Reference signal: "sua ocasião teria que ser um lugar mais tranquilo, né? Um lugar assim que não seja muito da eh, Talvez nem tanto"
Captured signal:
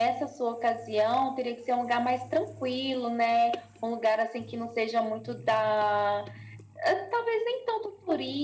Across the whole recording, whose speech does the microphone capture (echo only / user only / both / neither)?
echo only